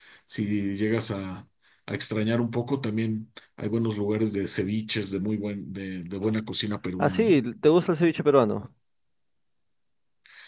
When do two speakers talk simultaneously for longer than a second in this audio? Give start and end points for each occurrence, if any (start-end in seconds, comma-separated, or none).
none